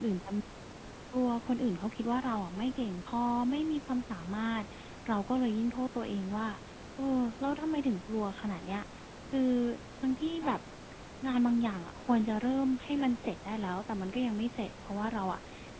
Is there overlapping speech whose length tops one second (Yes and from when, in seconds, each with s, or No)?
No